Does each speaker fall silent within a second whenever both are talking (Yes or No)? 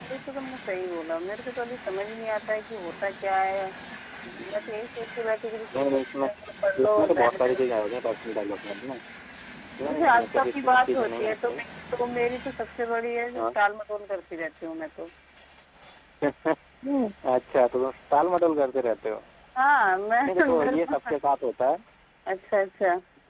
No